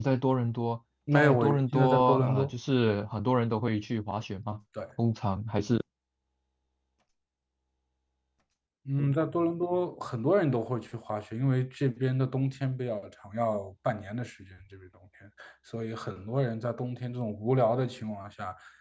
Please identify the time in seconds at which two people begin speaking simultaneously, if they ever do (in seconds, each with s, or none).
1.1 s